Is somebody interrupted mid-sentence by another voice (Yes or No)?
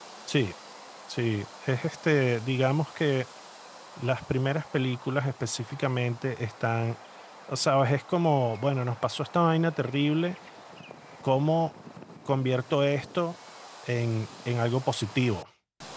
No